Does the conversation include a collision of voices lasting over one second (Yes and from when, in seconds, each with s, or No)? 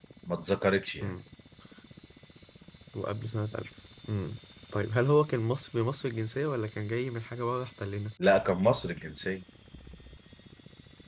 No